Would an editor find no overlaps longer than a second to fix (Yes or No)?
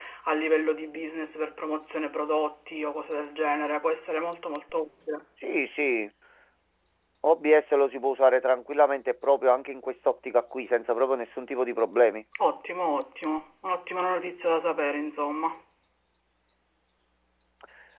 Yes